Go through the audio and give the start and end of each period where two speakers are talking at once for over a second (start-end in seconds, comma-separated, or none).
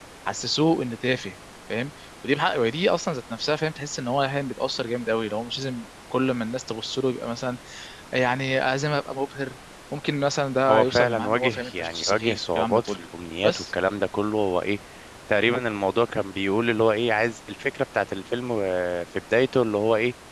10.7-13.0